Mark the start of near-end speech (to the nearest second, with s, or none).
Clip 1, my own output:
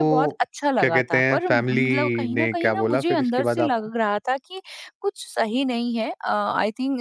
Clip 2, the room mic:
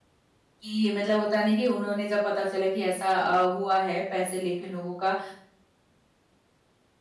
1 s